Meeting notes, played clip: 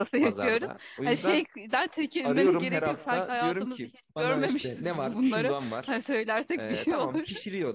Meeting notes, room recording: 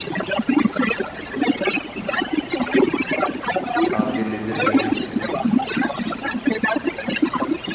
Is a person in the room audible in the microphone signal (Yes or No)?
Yes